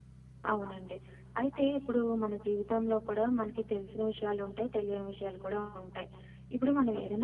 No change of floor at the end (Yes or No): Yes